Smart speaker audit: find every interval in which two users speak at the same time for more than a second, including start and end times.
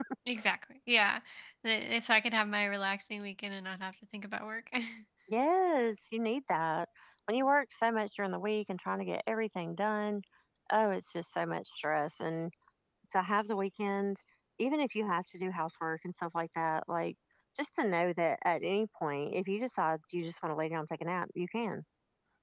none

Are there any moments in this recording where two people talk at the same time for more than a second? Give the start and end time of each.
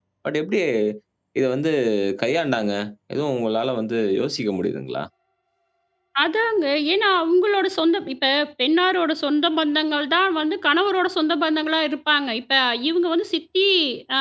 none

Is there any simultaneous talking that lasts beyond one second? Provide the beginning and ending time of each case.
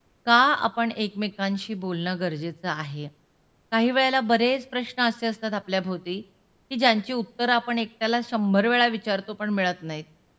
none

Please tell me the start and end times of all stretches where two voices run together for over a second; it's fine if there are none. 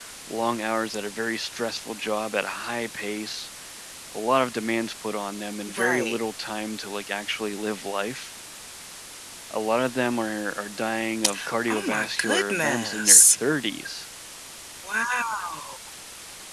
11.7-13.2

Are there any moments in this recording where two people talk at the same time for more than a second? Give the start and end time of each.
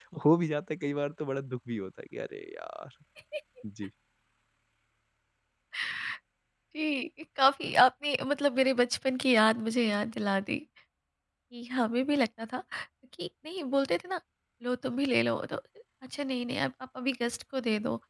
none

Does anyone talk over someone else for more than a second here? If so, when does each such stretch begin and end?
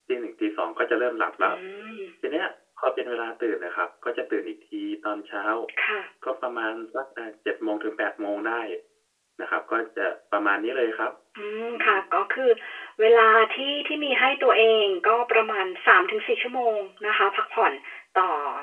none

